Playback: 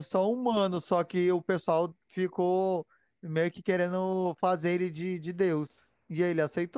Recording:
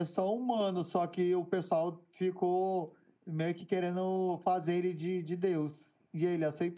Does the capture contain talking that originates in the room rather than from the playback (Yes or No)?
No